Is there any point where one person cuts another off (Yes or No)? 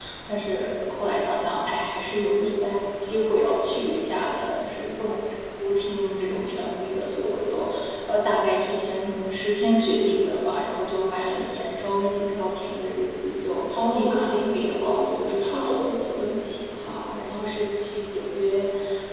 Yes